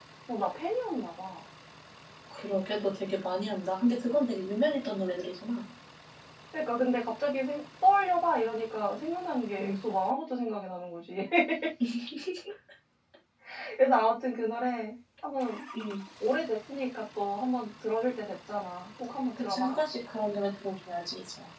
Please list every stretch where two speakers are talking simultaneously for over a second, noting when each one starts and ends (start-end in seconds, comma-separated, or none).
none